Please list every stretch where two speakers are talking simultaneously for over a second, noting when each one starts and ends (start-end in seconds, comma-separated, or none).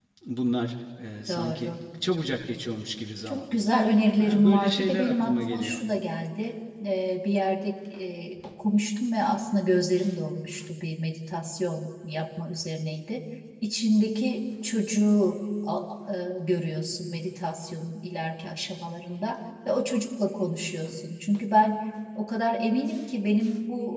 4.2-5.8